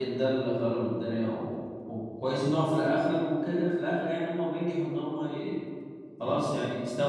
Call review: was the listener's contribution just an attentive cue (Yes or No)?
Yes